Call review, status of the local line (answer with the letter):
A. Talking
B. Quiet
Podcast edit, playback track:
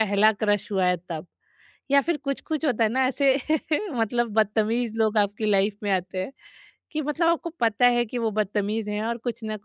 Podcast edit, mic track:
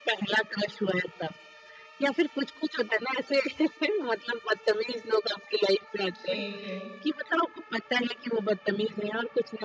A